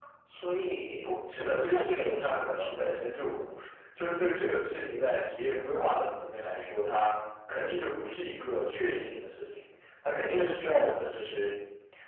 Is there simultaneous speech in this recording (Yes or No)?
Yes